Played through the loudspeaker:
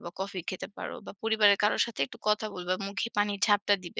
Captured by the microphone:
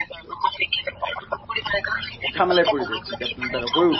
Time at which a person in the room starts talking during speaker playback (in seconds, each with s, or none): 2.3 s